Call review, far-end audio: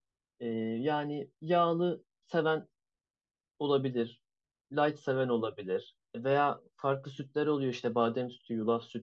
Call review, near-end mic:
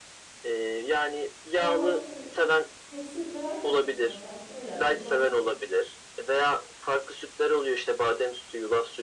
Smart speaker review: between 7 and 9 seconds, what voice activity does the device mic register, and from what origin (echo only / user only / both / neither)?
echo only